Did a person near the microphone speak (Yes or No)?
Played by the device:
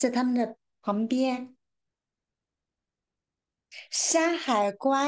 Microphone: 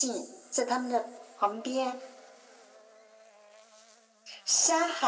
No